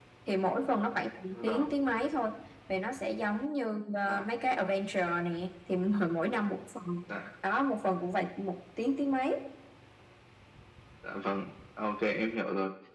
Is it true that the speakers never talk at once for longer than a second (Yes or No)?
Yes